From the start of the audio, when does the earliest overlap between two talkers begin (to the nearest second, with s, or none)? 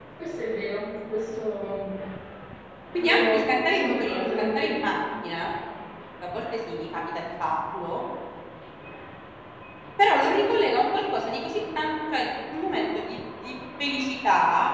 3 s